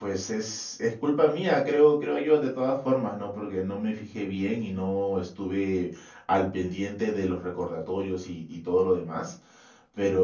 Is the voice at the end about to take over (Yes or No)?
No